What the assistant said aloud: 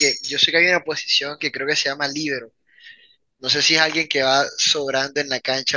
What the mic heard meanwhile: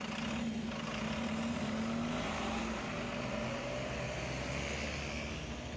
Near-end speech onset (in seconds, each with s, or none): none